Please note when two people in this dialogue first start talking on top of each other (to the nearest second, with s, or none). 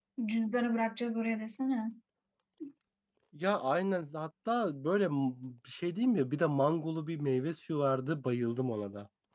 none